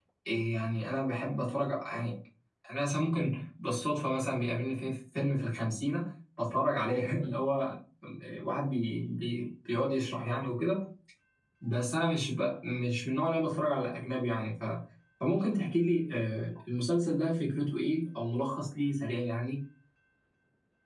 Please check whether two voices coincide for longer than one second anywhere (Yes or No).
No